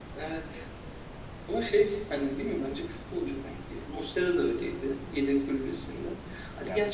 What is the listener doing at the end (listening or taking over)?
listening